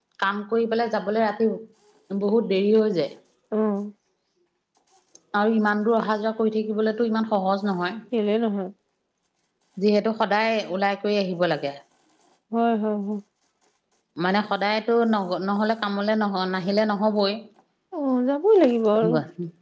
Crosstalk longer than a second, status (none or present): none